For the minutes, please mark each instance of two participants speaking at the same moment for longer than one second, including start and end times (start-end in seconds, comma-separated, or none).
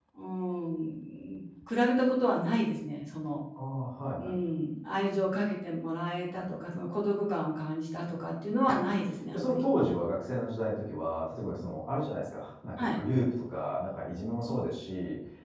none